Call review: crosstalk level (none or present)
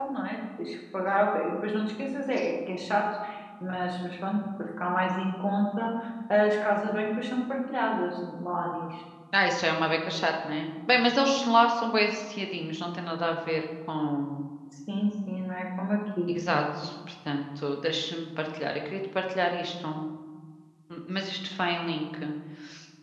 none